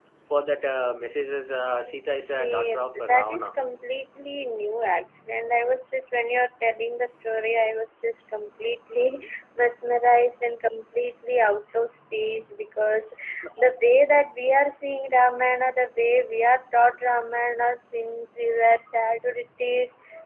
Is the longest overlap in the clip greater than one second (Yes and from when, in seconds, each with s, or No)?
Yes, from 2.3 s